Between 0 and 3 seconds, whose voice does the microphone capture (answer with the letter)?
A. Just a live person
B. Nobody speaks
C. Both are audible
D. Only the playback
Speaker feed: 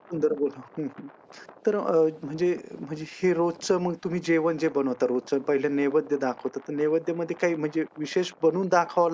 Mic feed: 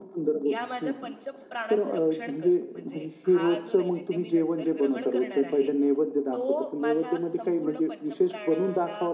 C